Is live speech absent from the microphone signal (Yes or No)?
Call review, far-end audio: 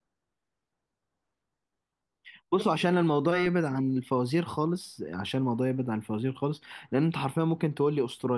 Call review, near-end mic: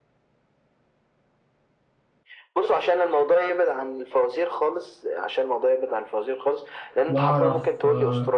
No